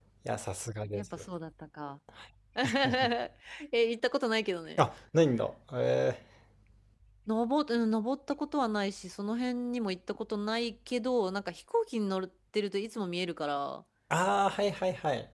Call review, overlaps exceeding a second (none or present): none